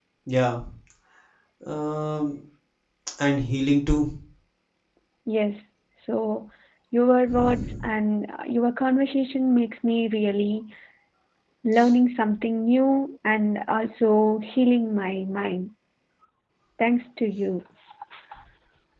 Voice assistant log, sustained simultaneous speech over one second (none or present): none